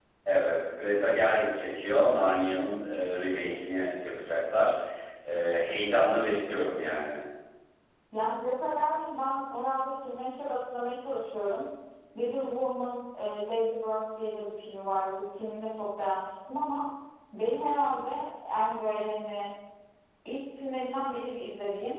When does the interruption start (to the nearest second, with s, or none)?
none